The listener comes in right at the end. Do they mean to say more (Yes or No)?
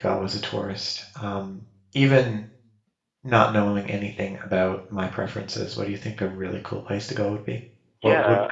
Yes